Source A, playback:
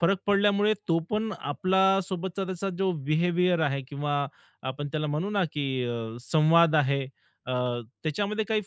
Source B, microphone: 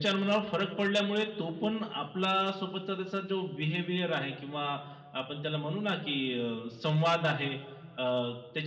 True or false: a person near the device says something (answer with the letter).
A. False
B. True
A